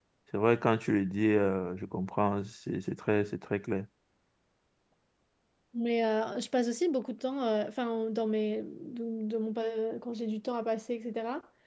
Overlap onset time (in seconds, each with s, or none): none